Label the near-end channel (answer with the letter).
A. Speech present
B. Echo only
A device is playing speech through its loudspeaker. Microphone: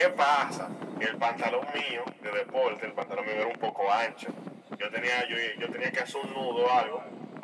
B